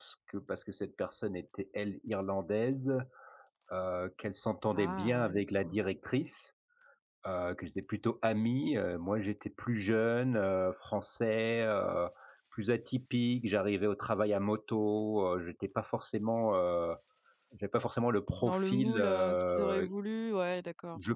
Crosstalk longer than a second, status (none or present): present